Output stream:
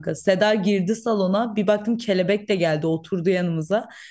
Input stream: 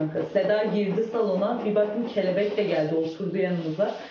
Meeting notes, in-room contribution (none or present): none